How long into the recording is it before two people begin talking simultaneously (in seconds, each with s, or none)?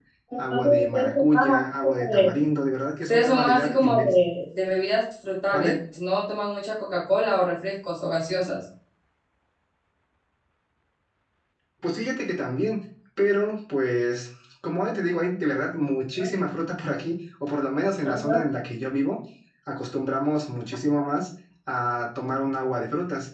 0.5 s